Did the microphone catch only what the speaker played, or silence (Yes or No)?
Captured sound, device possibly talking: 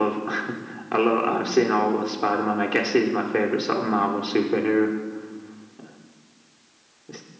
Yes